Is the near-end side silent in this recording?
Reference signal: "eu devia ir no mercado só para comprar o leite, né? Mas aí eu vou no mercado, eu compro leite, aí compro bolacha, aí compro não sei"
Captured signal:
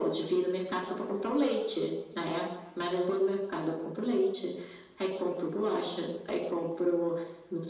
Yes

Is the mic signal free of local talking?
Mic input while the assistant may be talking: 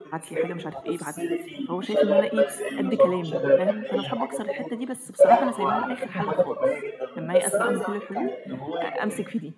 No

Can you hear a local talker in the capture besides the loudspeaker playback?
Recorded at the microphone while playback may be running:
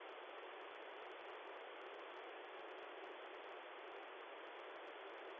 No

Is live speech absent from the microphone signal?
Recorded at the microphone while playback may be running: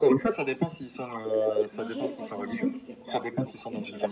No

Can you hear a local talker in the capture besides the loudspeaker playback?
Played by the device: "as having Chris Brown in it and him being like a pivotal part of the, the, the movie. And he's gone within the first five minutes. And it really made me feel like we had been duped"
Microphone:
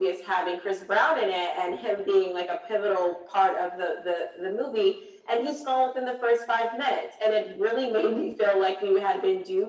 No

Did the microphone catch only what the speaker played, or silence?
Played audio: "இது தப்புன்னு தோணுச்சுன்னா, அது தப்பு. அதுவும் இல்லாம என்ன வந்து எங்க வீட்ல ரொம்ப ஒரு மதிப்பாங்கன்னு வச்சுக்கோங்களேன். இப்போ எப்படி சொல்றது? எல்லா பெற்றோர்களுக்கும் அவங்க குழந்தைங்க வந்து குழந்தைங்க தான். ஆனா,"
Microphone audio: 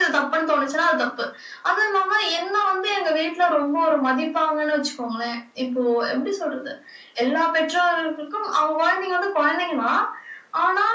Yes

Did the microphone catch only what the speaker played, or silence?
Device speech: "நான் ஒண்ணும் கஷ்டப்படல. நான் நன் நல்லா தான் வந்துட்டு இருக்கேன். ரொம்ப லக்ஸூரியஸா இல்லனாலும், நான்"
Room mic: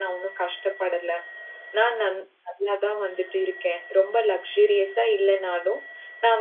Yes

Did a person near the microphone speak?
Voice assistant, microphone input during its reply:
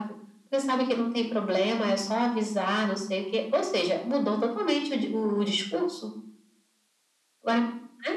No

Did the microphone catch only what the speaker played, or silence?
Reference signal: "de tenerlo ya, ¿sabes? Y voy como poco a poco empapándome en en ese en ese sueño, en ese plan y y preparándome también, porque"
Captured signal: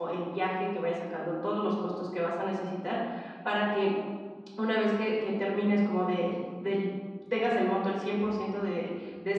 No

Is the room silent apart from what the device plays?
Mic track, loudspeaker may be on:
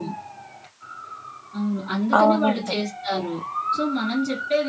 No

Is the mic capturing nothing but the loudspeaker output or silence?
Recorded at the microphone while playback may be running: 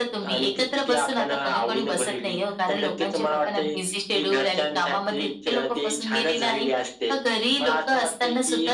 Yes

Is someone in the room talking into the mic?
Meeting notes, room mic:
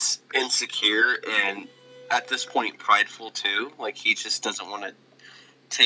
No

